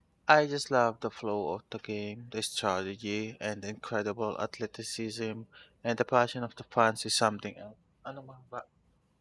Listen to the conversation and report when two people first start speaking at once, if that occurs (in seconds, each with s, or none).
none